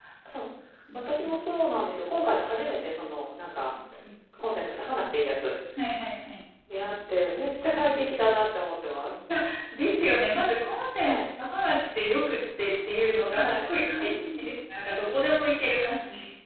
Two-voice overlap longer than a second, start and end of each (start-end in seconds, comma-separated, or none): 13.3-14.5